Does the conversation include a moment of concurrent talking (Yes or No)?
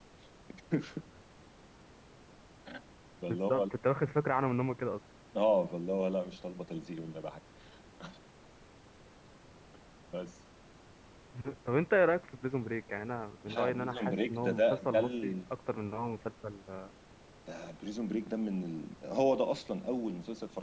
Yes